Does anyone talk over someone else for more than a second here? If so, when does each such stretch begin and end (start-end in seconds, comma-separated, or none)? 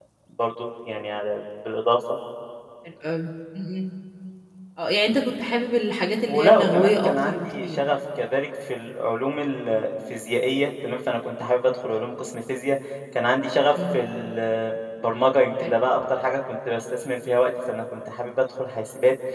6.3-7.8